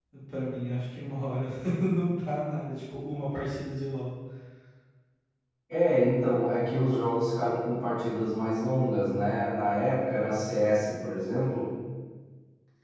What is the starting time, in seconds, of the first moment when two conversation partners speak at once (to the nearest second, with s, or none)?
none